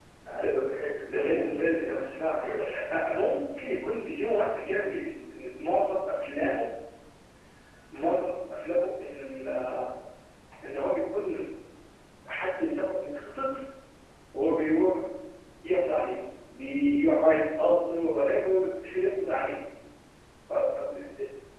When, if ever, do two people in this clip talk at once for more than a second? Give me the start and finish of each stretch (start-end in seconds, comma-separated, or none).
1.1-2.5